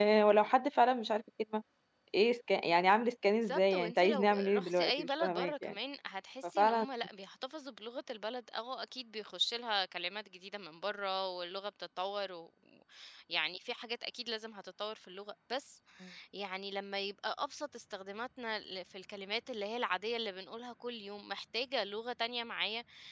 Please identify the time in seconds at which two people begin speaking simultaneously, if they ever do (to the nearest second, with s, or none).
3 s